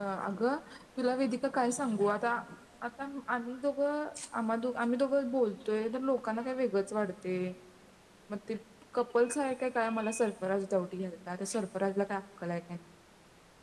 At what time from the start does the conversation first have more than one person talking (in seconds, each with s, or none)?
none